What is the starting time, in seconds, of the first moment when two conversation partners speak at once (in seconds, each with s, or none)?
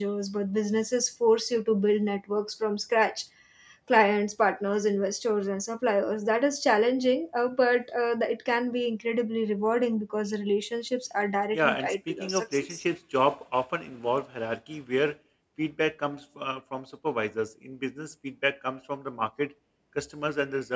11.5 s